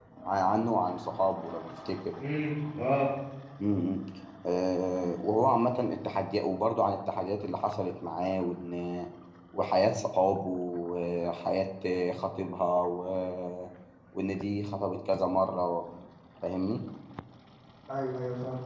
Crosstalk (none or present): none